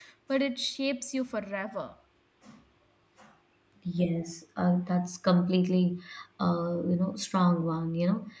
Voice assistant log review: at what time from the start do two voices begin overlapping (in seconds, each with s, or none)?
none